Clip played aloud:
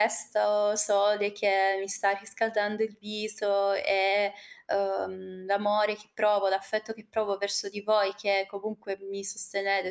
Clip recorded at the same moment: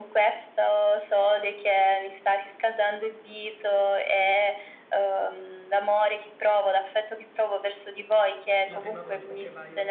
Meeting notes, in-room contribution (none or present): present